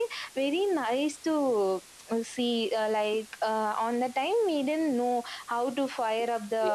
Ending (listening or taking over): listening